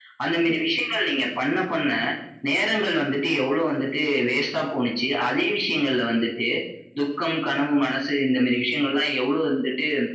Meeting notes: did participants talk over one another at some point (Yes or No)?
No